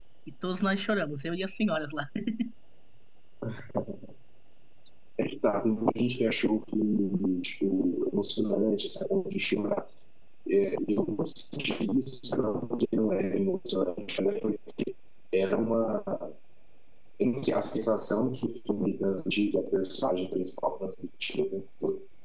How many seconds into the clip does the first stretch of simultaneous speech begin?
none

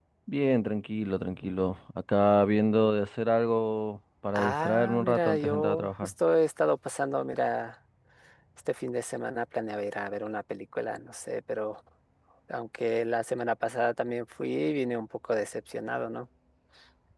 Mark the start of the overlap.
4.3 s

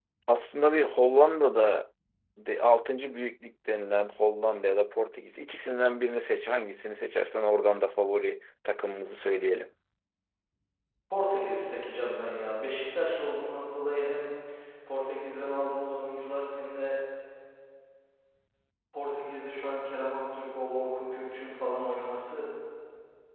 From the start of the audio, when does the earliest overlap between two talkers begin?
none

